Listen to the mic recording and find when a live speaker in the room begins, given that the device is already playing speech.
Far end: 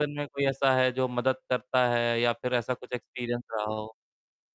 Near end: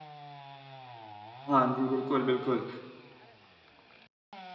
1.5 s

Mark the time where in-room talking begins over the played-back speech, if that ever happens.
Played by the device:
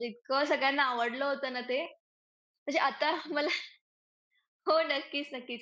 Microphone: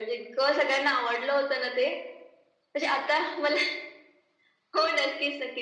none

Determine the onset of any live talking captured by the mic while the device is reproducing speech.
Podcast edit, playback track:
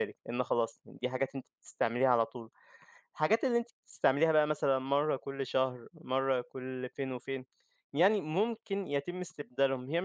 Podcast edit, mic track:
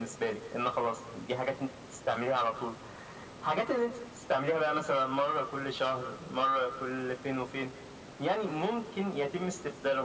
none

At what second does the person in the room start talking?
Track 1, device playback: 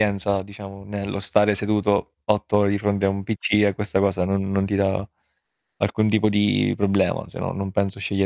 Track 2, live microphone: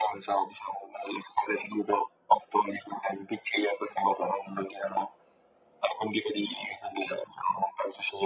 none

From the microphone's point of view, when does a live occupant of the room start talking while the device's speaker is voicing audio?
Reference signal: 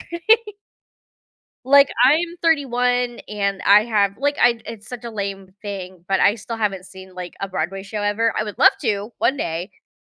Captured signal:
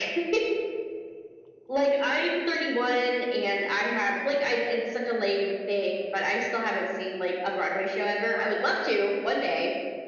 none

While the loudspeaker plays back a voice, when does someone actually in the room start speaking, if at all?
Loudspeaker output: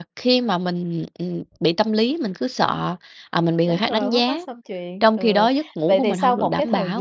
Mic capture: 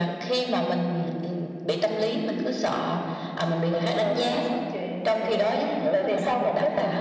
none

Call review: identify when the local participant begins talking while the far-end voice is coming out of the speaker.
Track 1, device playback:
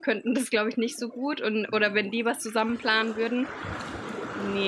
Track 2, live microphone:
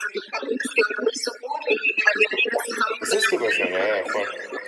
3.0 s

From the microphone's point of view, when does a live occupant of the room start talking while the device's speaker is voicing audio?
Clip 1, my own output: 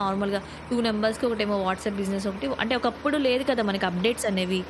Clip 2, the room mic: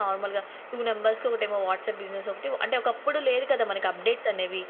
none

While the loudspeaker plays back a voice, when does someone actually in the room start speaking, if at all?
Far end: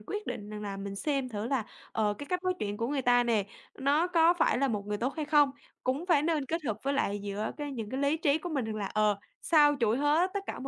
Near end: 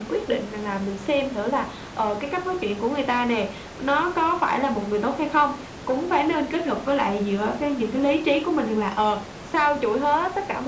none

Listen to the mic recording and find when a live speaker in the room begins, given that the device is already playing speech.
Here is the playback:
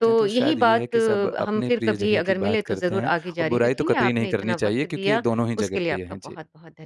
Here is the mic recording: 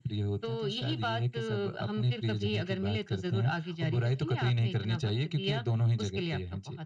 none

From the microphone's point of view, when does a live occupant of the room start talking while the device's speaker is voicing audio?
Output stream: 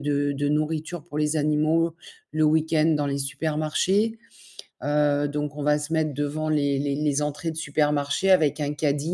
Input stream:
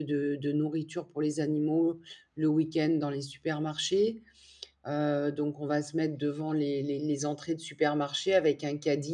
none

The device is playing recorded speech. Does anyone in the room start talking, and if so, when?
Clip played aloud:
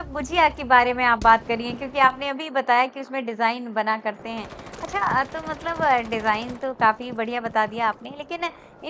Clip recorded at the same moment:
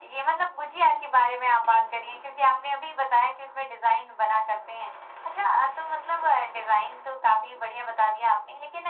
none

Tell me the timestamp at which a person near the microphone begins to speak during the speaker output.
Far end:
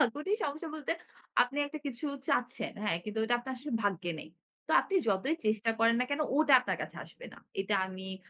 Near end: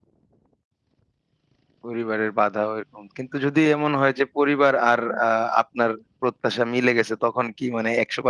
1.9 s

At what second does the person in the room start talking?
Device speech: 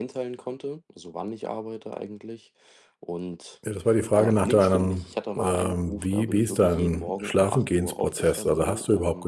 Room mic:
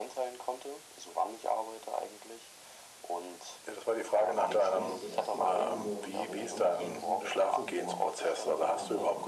4.3 s

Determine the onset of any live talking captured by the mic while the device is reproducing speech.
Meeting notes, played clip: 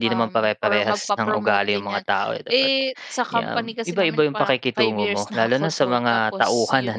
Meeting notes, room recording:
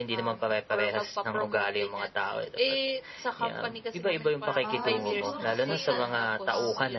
4.6 s

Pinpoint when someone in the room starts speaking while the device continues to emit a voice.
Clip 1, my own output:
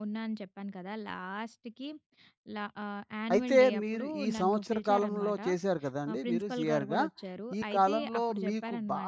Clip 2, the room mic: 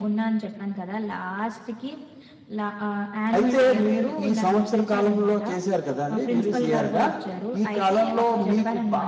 none

